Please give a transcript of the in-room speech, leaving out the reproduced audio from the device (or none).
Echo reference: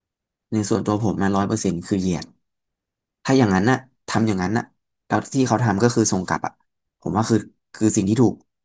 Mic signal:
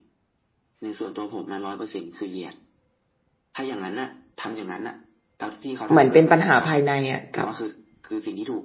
เหมือนเป็นปัญหาภายในอ่ะกับ